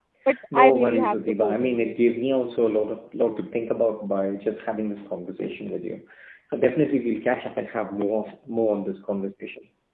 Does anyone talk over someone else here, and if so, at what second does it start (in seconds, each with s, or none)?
0.5 s